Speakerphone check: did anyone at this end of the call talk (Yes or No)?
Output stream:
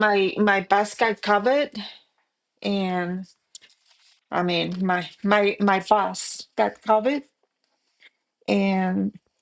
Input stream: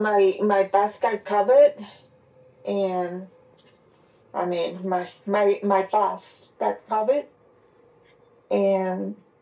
No